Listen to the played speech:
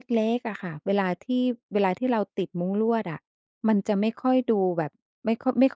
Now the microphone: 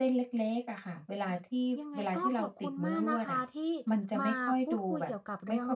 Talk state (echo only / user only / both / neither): both